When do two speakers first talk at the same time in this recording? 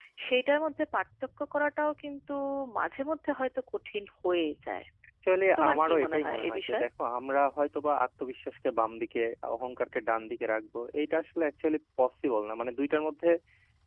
5.6 s

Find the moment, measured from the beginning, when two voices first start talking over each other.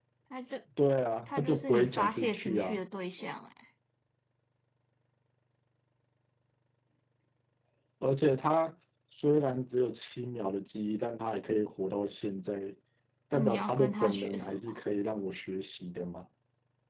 1.3 s

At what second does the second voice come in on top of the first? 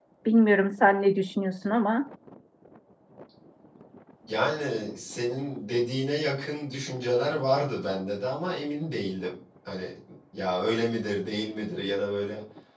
none

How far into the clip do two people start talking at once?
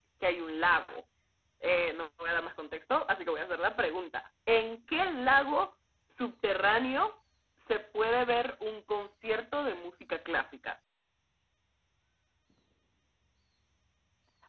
none

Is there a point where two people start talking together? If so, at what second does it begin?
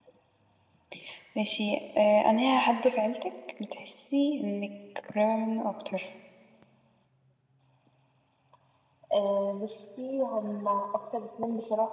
none

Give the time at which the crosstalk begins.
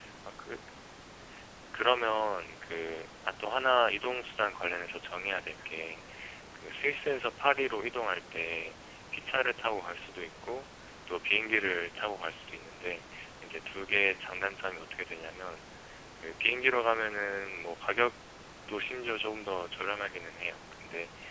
none

